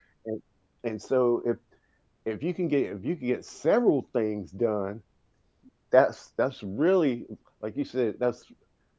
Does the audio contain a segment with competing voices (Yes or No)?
No